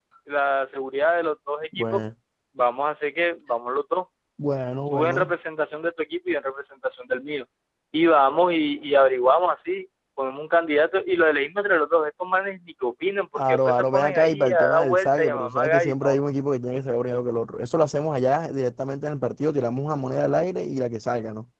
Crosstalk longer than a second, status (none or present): present